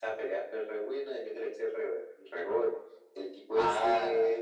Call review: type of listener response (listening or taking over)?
listening